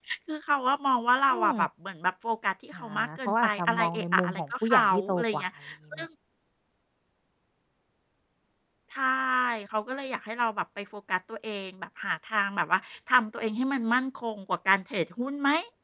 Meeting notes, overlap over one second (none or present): present